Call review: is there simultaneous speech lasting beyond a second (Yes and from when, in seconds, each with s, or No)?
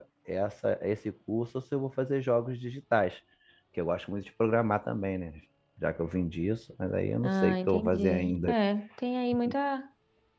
Yes, from 7.2 s